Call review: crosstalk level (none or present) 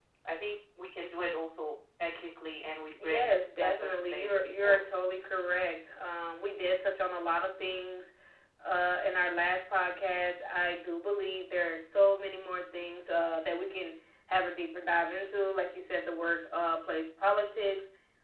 present